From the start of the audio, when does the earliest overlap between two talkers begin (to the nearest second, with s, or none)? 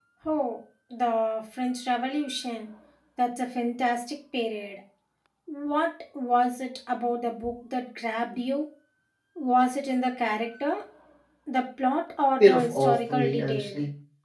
12 s